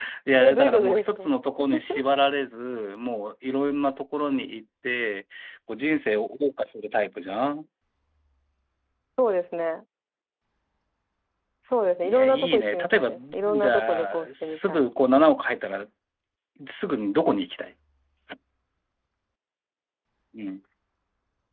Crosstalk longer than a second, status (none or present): present